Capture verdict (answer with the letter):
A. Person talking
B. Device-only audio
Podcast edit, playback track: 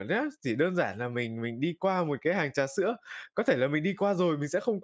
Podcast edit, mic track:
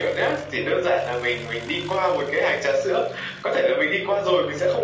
B